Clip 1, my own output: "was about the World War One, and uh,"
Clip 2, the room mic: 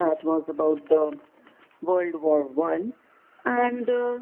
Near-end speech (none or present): none